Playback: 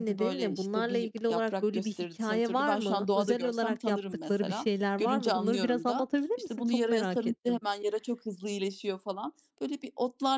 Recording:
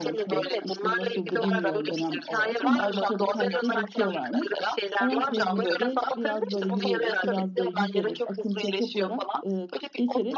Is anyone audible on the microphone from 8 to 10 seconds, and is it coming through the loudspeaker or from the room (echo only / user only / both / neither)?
both